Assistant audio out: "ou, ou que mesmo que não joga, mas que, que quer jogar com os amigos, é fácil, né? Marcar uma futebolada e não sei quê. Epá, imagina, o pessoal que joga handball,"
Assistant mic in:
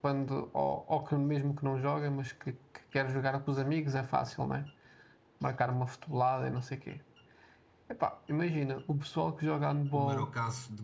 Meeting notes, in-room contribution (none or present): present